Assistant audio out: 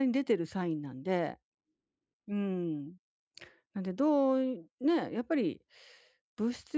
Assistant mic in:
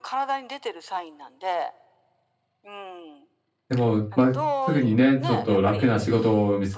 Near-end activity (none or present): present